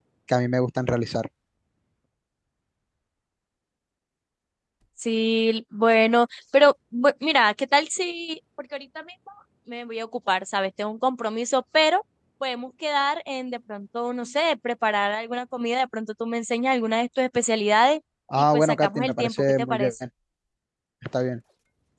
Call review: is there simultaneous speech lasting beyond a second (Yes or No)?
Yes